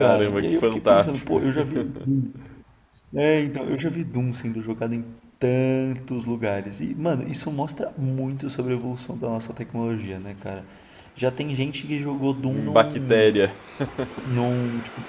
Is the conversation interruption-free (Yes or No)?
No